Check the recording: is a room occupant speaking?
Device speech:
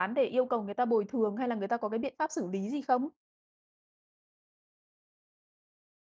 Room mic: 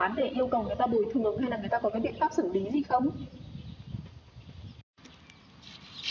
No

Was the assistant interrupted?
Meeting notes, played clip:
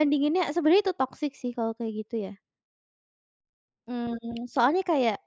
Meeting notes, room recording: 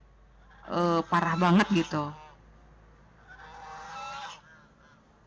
Yes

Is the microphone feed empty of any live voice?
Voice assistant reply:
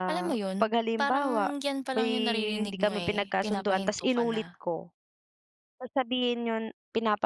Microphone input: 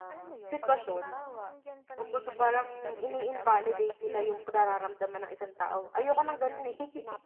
No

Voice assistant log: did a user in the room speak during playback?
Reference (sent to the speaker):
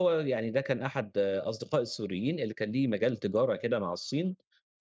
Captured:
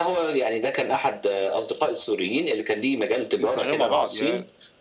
Yes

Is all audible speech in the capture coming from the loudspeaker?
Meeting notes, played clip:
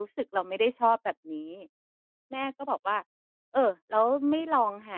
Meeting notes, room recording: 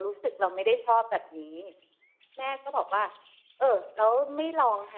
Yes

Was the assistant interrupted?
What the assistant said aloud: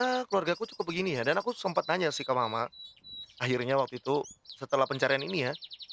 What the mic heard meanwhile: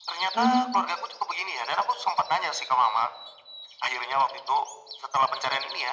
Yes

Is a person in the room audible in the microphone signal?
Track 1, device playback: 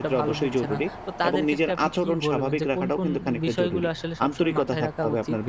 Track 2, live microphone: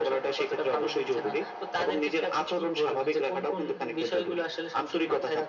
No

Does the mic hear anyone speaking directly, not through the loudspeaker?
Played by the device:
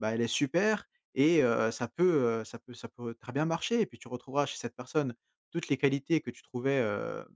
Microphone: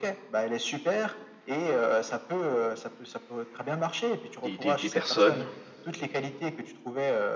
Yes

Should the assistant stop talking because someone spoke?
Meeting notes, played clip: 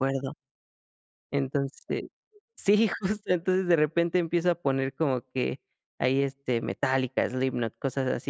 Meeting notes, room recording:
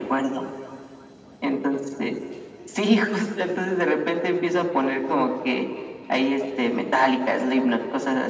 No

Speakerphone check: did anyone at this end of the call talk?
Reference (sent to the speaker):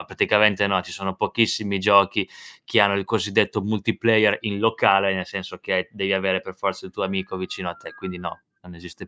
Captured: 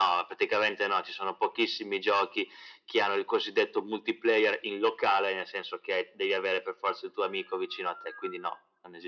No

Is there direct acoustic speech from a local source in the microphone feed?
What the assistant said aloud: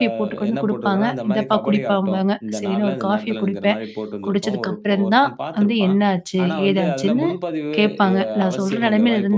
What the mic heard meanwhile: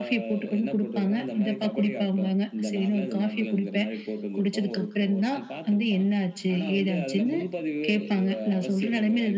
No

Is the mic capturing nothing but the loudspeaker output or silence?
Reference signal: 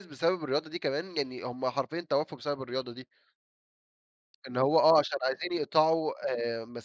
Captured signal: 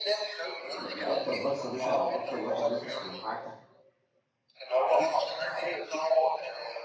No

